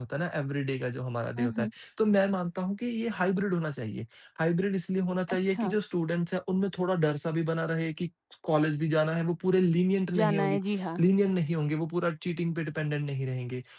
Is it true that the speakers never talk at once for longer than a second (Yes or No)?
Yes